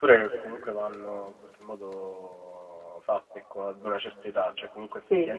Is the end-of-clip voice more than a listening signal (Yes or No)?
No